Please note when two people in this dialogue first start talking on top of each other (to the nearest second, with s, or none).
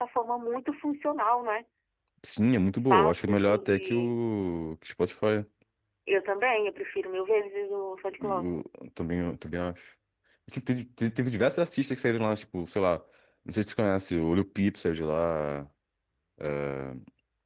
3 s